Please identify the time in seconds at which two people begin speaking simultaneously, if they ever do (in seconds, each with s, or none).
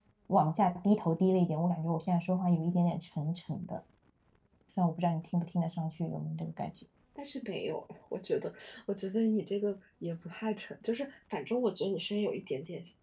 none